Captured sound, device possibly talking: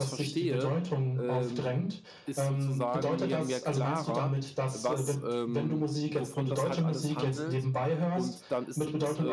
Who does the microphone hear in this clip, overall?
both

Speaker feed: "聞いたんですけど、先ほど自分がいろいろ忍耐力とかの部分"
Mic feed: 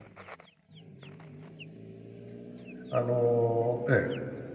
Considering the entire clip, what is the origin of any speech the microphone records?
user only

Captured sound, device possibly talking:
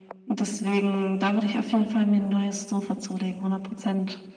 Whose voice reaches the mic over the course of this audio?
echo only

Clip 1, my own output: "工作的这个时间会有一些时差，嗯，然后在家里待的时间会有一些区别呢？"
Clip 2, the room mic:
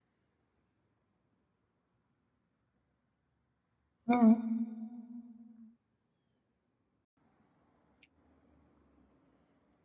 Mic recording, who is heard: user only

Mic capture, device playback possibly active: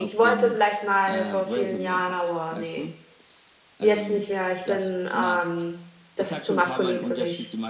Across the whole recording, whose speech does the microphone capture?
both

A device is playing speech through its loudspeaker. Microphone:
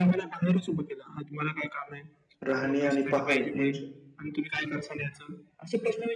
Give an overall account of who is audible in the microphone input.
both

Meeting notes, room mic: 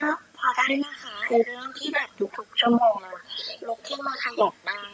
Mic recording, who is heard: echo only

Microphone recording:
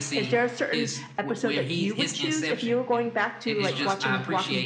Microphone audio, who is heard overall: both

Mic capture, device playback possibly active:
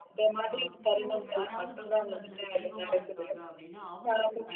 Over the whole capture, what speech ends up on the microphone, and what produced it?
both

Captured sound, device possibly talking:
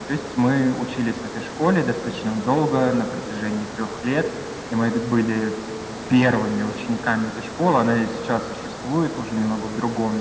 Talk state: echo only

